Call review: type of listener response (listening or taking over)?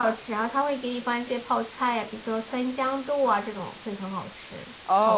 taking over